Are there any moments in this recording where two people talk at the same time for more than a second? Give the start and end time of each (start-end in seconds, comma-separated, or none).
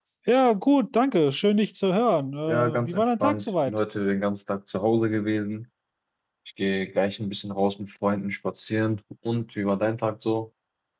2.5-3.8